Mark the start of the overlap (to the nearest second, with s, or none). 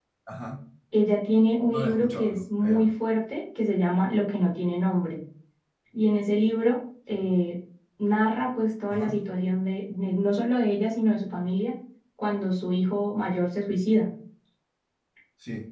2 s